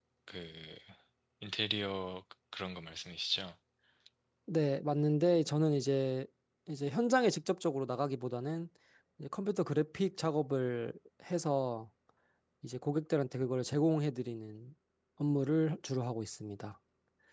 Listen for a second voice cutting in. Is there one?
No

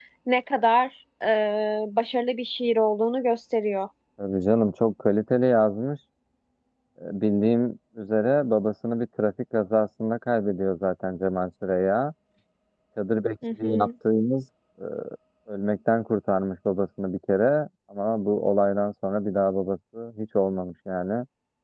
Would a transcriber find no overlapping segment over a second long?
Yes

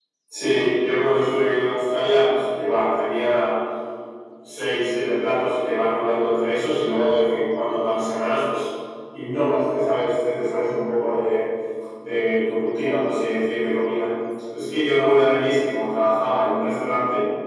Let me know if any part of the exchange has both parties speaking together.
No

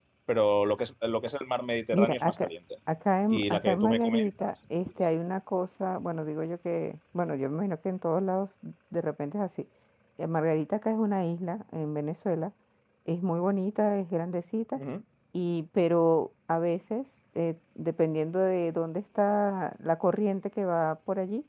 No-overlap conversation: No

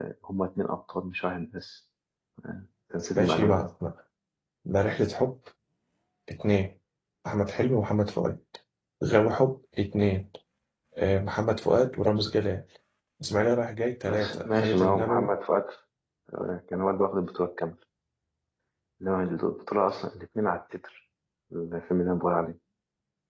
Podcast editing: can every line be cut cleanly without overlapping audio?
No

